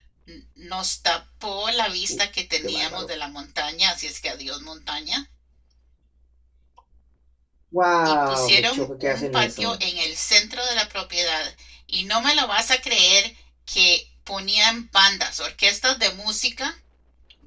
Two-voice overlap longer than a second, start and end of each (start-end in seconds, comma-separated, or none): 8.1-9.8